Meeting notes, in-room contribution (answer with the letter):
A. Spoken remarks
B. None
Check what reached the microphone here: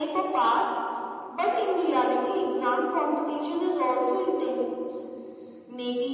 B